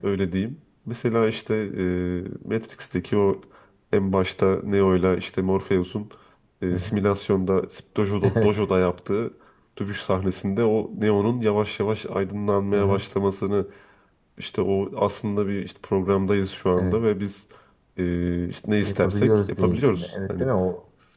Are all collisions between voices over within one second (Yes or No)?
No